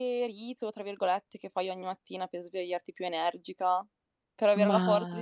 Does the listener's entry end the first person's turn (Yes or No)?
No